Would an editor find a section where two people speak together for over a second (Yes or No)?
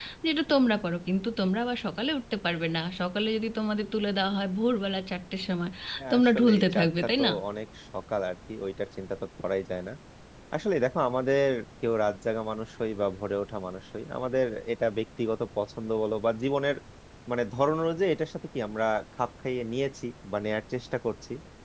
Yes